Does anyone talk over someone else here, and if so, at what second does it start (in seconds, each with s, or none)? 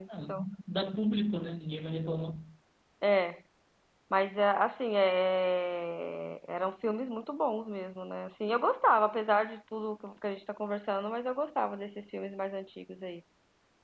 none